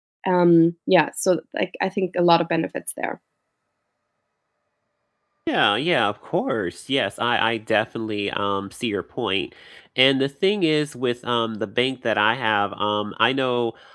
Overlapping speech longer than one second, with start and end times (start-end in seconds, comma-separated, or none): none